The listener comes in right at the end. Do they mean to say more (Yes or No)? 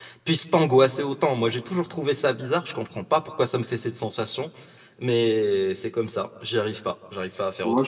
Yes